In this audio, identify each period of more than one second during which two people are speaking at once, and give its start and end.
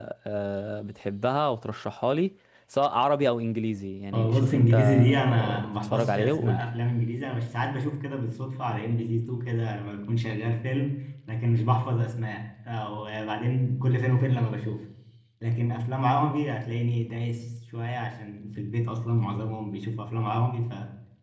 4.1-6.6

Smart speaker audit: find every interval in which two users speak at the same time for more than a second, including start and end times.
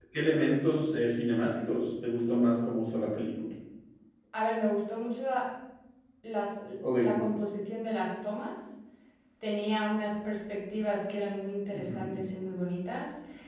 none

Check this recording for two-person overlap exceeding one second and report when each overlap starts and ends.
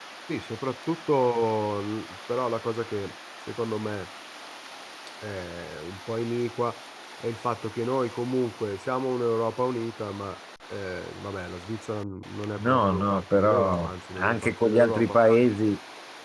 12.6-15.3

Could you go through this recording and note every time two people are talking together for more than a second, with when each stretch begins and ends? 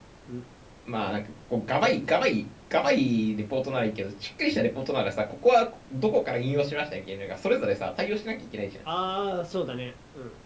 none

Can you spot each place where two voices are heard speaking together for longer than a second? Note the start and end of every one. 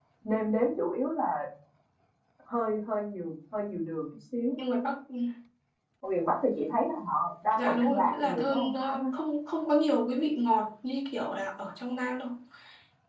7.6-9.1

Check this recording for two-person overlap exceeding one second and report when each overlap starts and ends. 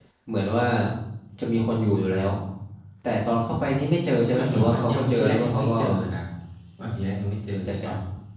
4.3-5.8

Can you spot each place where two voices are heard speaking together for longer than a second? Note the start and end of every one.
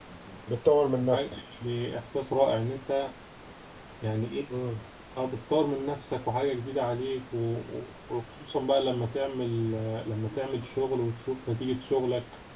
none

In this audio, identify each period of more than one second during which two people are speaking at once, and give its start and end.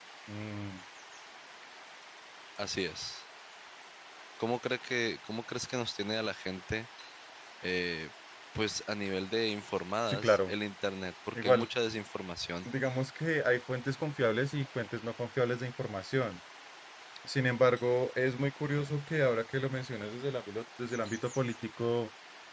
none

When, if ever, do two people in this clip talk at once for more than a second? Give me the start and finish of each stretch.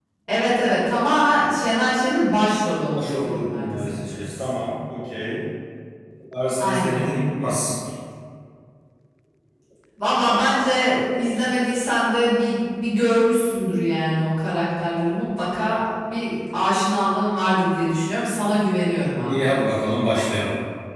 2.9-4.5

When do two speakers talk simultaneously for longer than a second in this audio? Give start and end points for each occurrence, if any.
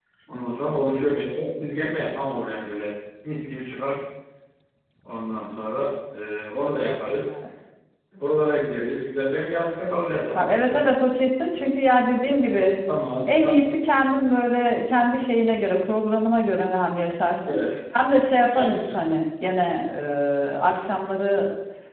none

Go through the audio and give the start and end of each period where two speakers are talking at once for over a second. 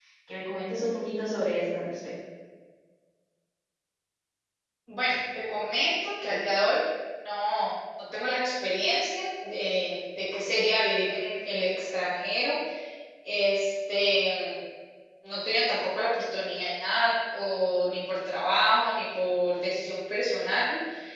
none

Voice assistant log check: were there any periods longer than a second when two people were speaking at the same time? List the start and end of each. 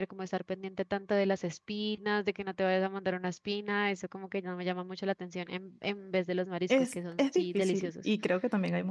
6.7-7.9

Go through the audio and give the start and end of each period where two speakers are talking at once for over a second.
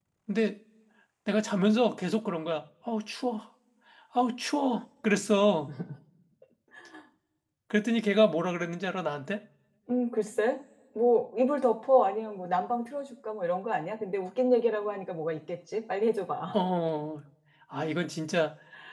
none

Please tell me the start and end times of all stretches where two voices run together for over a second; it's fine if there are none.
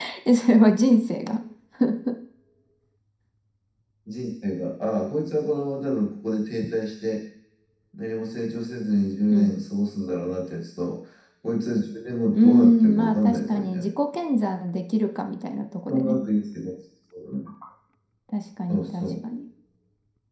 12.3-13.9

